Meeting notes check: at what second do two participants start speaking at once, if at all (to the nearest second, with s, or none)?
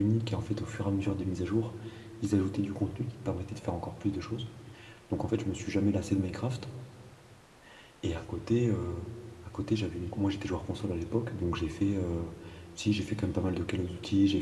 none